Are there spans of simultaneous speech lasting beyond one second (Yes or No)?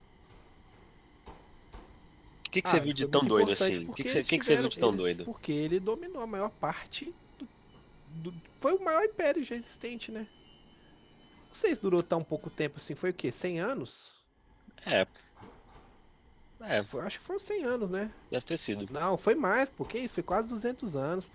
Yes